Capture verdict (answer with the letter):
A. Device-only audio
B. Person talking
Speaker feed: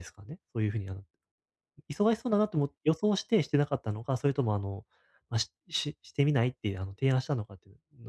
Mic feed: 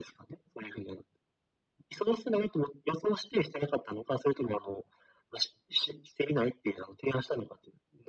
A